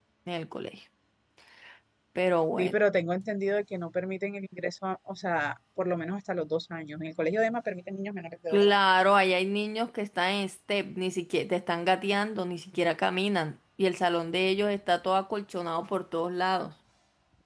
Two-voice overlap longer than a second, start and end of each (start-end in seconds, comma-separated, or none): none